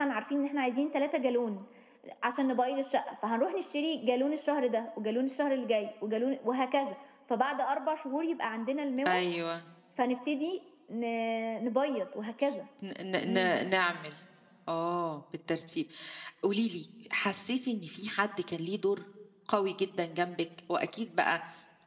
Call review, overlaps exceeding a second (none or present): none